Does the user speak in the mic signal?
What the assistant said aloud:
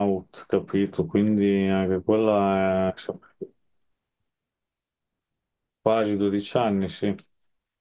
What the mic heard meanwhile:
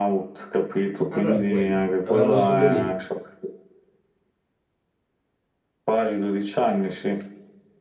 Yes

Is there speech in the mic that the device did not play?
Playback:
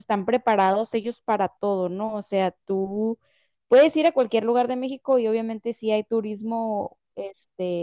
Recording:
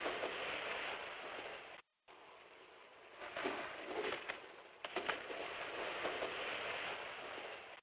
No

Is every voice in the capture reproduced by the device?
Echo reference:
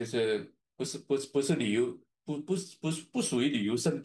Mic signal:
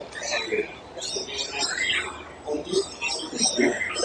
Yes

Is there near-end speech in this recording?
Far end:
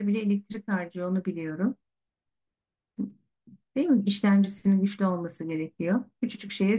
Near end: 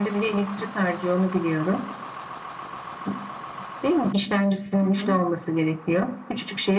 Yes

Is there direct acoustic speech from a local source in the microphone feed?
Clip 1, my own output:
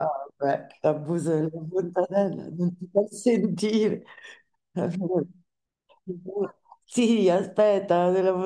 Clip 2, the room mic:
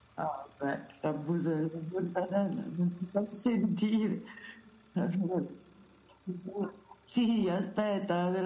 No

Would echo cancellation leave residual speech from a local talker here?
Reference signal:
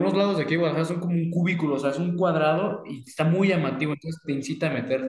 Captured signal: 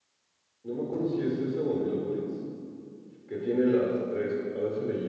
Yes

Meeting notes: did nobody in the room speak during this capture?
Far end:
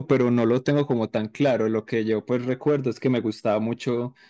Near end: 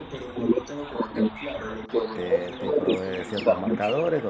No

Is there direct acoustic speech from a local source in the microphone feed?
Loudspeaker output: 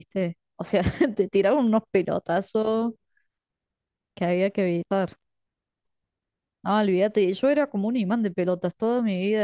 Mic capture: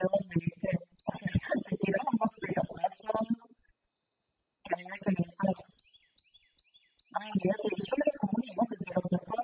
No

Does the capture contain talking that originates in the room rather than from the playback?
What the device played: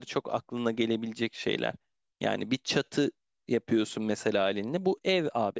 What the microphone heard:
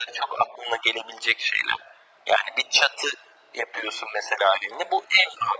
No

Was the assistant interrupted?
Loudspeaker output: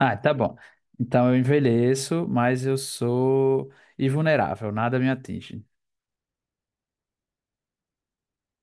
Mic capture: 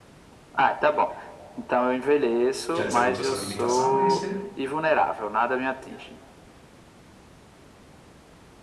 Yes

